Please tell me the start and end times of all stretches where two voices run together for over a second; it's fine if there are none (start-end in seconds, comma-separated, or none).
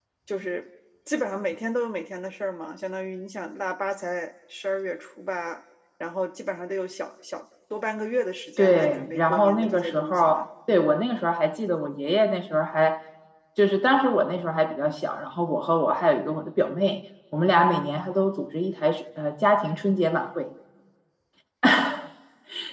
8.6-10.5